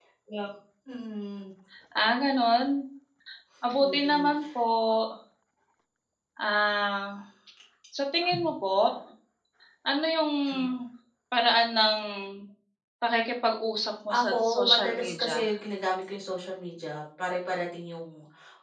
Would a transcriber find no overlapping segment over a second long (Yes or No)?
No